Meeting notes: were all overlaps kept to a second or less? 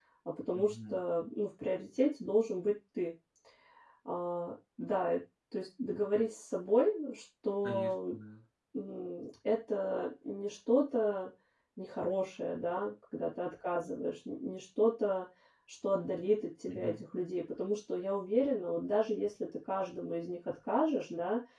Yes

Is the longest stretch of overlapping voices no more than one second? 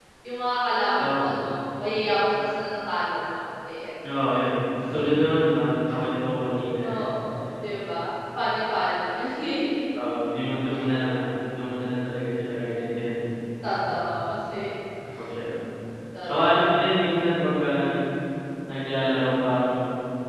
Yes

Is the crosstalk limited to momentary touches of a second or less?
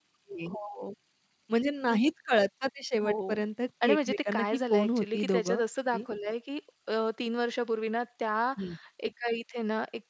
No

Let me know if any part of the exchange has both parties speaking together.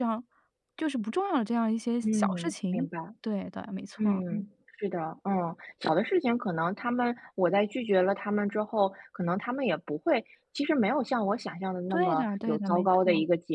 Yes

